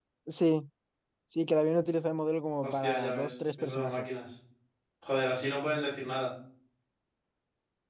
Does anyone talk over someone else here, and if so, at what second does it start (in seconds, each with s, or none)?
2.6 s